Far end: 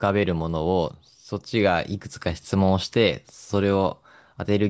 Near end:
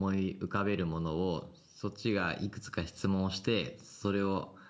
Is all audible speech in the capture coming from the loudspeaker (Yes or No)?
Yes